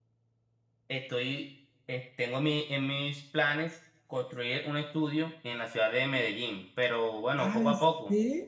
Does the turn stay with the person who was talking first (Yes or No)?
No